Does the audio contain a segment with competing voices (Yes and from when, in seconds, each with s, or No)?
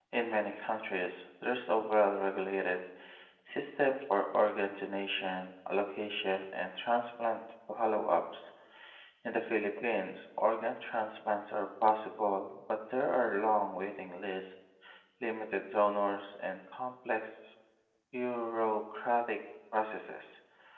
No